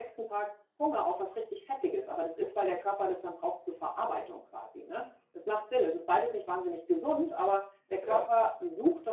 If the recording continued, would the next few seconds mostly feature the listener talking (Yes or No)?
No